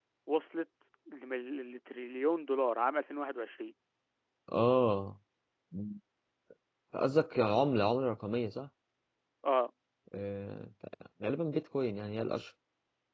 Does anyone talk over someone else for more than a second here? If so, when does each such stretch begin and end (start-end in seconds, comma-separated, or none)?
none